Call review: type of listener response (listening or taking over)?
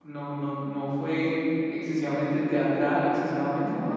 listening